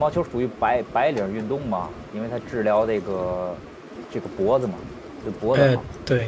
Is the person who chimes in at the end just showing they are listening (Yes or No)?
No